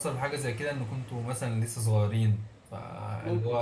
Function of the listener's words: listening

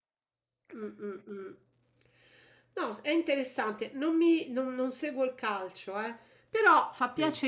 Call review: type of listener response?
listening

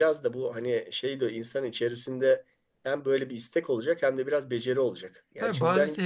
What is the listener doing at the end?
taking over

